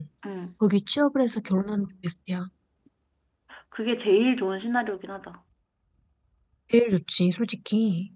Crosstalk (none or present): none